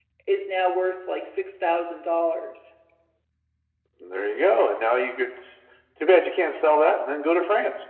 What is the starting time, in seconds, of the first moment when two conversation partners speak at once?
none

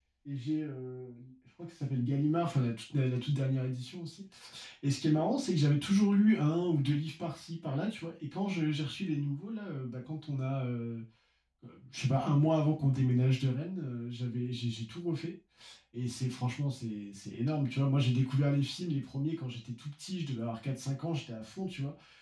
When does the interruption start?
none

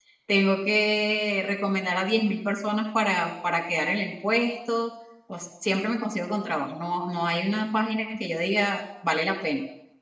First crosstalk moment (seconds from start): none

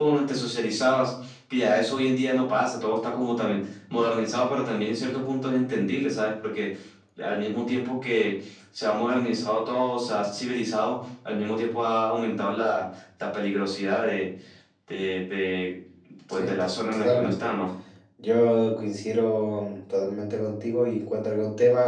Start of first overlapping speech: 16.3 s

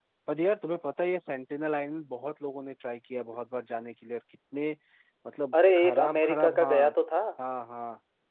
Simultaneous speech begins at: 5.5 s

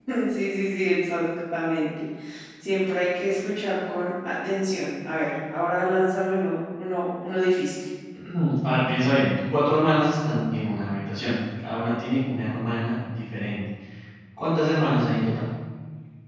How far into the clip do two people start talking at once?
none

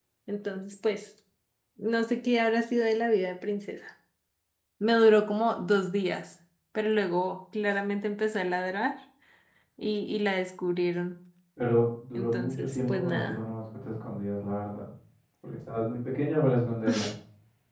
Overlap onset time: 12.1 s

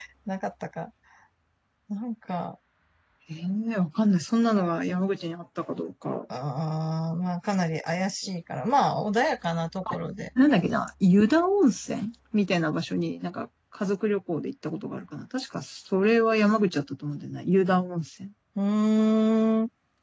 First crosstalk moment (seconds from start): none

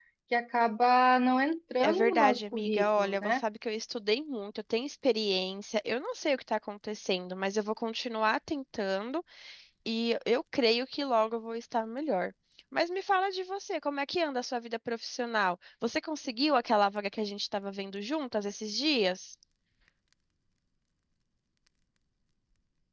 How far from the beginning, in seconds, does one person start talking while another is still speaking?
1.8 s

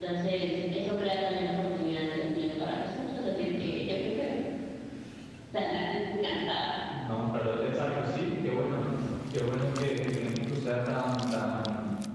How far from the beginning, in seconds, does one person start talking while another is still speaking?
none

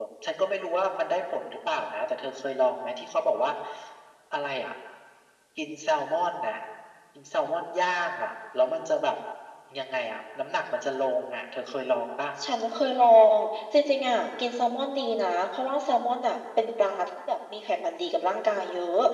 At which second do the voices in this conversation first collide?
none

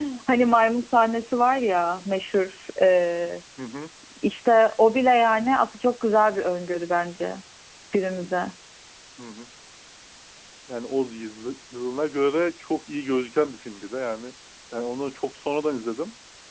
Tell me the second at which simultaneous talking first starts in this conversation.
none

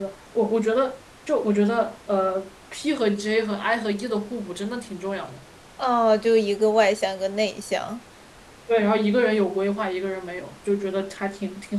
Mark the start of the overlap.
none

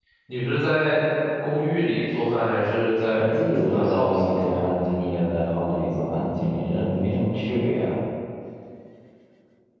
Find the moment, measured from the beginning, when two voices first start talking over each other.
3.2 s

